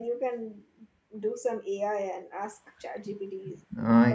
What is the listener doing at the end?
taking over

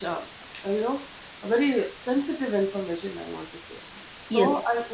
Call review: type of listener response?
listening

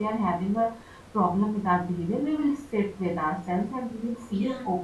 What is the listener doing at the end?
listening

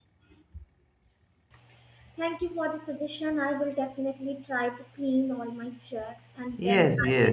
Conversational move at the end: taking over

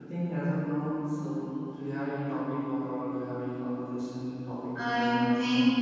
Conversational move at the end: taking over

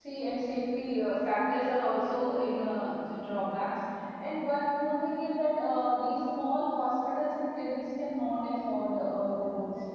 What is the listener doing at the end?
taking over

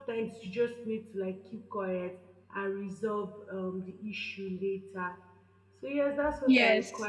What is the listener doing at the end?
listening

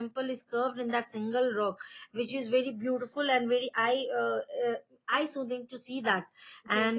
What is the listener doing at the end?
taking over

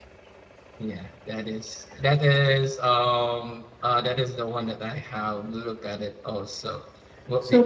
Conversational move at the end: listening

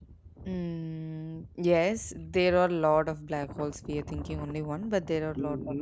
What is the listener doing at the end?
taking over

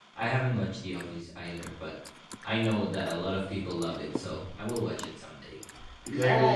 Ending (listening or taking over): taking over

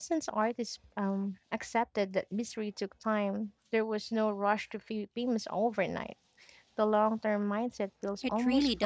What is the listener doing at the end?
taking over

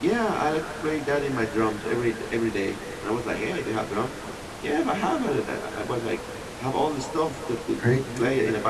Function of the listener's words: listening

